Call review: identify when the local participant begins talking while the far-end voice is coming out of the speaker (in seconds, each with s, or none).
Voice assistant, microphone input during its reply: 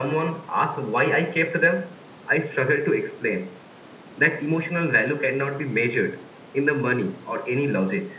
none